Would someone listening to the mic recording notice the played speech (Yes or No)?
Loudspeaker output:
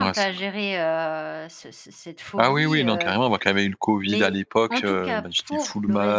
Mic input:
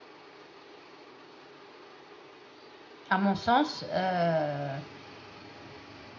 No